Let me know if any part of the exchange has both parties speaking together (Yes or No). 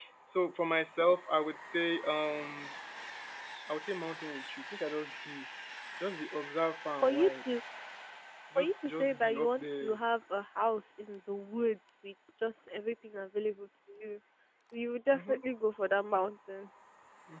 Yes